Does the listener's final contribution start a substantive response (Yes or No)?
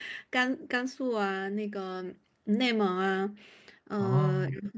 No